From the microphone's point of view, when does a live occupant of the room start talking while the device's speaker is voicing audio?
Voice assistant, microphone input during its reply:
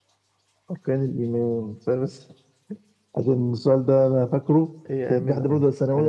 5 s

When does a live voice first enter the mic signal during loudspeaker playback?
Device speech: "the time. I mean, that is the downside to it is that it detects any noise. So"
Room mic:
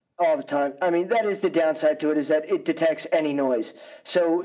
none

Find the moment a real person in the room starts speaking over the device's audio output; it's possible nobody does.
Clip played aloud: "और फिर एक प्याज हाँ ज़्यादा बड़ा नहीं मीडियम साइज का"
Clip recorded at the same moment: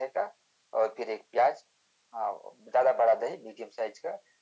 none

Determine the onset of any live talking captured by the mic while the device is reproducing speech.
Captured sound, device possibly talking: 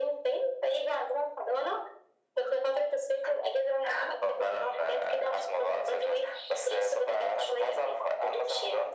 none

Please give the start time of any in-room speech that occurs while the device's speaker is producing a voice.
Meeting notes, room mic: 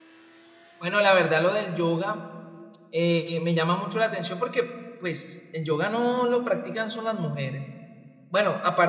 1 s

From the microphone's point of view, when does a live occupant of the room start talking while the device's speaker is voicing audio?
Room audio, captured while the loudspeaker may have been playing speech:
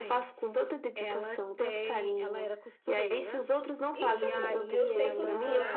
4 s

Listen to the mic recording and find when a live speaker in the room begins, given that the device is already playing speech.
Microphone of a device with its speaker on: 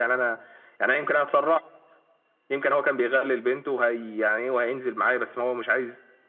none

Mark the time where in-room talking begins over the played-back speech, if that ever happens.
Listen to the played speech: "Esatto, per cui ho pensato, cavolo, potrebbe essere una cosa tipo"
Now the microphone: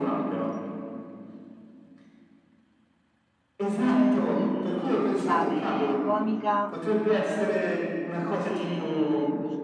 4 s

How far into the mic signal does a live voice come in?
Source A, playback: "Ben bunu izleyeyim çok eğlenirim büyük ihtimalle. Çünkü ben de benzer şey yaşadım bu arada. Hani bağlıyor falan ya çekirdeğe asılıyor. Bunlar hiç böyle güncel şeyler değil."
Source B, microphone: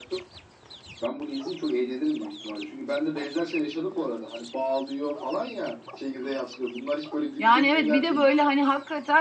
7 s

